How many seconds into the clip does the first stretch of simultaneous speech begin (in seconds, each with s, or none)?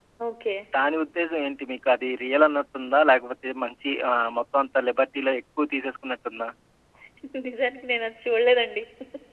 none